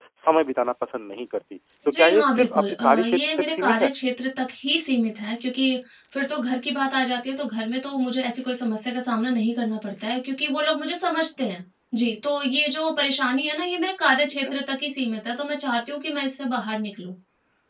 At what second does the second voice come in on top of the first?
1.9 s

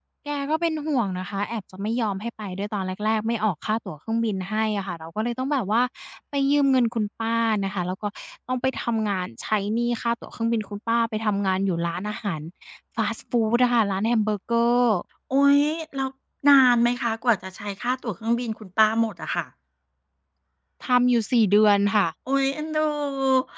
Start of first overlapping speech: none

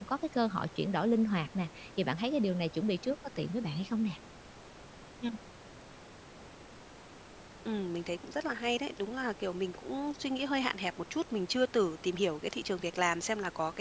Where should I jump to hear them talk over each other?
none

